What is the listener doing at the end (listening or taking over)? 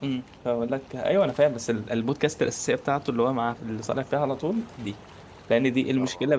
listening